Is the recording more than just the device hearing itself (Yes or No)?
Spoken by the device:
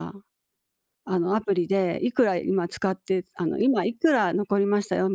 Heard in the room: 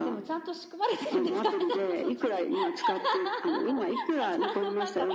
Yes